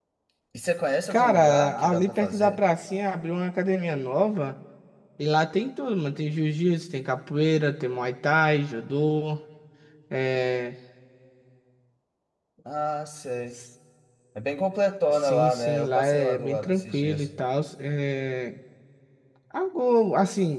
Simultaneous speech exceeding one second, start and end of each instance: 1.1-2.6, 15.1-17.3

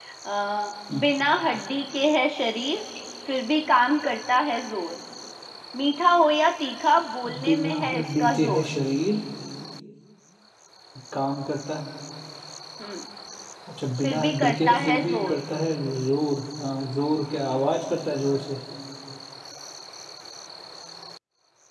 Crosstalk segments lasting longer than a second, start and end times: 7.4-8.7, 14.0-15.4

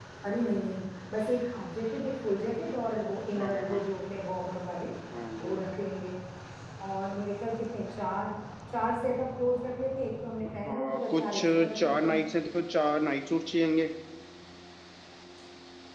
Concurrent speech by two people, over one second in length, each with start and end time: 10.6-12.2

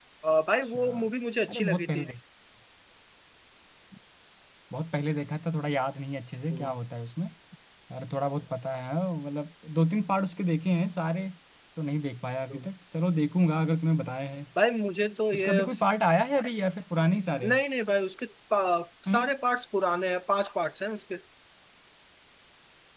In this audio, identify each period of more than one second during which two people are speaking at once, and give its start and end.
none

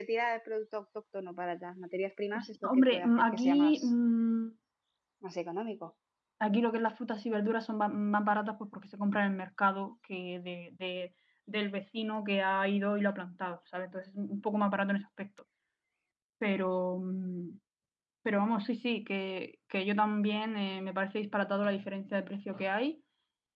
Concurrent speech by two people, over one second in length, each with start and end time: 2.4-3.9

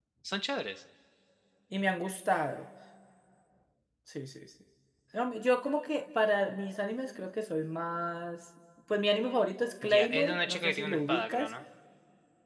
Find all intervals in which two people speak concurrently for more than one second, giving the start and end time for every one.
9.8-11.5

